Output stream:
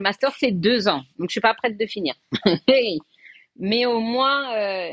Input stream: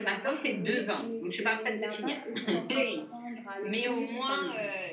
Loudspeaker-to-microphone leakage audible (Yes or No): Yes